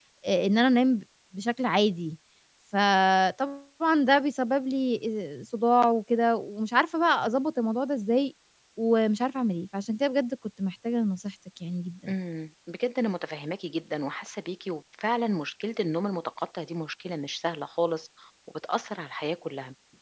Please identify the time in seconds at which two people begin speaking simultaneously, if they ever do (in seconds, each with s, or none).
none